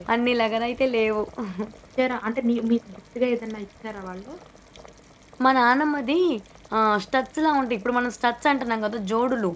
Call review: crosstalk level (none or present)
none